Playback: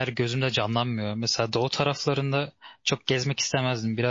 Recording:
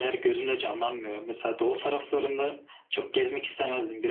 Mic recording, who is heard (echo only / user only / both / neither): echo only